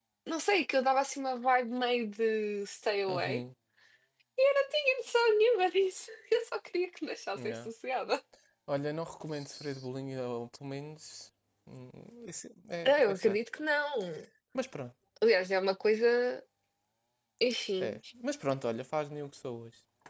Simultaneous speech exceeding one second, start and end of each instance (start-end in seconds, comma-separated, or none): none